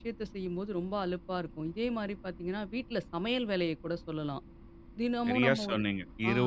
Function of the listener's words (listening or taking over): taking over